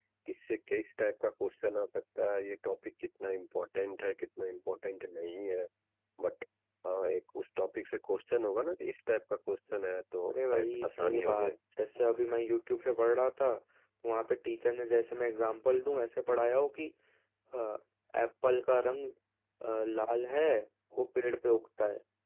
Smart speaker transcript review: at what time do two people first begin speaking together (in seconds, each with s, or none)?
10.3 s